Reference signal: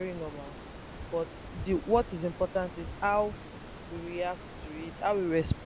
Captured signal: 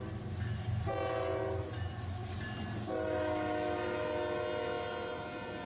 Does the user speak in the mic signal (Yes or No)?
No